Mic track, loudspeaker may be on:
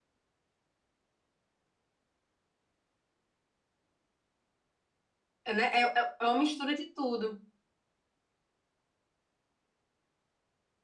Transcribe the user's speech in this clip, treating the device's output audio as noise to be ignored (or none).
né? É, é- é uma mistura de tudo.